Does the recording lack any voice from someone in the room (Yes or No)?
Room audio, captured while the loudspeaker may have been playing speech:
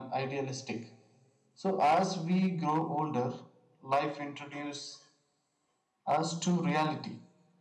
Yes